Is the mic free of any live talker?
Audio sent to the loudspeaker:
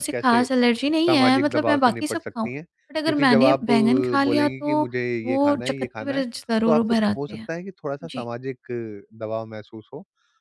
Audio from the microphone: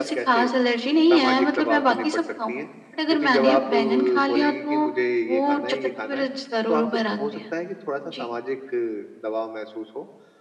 Yes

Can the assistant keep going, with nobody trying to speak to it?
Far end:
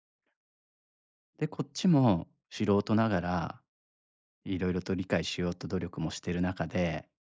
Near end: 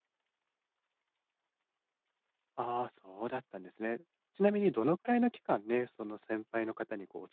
No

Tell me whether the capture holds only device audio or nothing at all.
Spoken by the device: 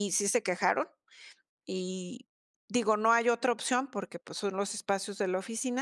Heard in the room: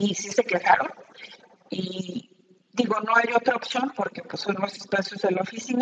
Yes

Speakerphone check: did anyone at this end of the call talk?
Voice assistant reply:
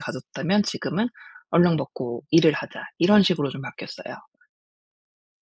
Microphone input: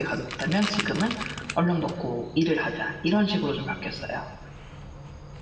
No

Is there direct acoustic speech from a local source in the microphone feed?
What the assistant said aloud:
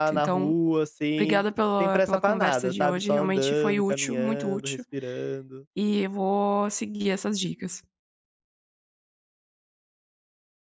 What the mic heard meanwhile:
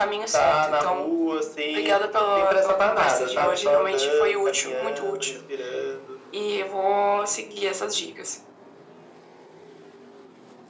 No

